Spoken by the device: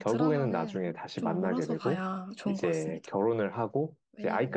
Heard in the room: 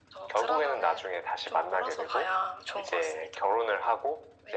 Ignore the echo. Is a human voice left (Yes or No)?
No